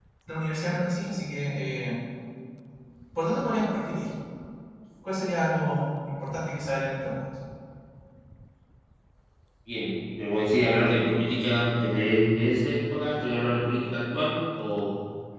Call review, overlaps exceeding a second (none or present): none